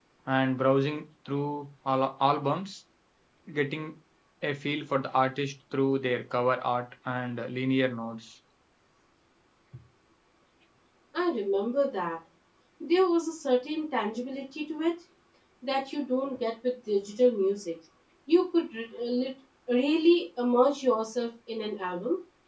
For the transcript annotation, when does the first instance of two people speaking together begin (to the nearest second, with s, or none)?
none